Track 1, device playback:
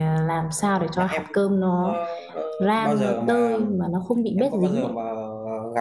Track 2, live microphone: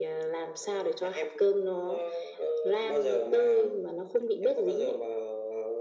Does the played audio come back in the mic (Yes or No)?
Yes